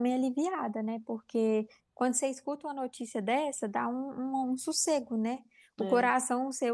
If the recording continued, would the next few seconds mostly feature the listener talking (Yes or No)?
No